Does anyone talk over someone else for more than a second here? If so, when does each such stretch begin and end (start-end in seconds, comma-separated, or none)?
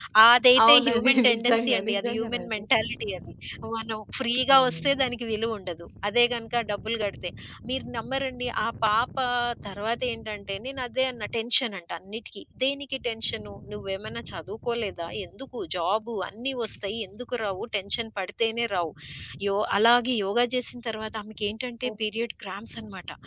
0.7-2.6